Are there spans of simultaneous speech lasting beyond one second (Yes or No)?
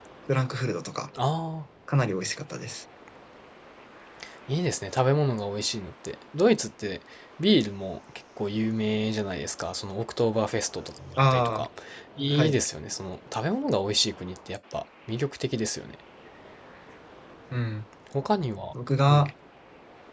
No